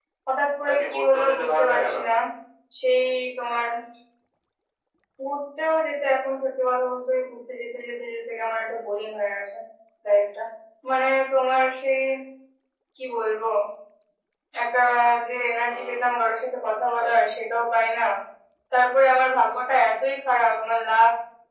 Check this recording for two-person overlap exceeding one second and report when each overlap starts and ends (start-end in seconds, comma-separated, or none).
0.7-2.0